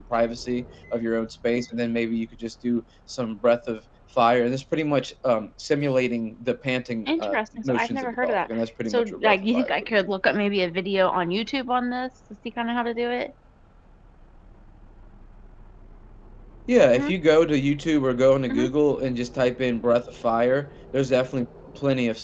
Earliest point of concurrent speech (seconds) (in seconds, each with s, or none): 7.1 s